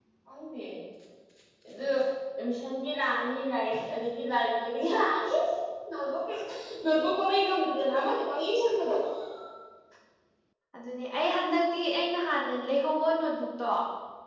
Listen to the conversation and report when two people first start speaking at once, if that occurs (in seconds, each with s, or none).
none